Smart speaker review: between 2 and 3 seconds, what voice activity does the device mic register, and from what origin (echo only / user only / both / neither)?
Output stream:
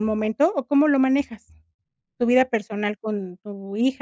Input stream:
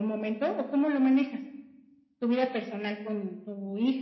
echo only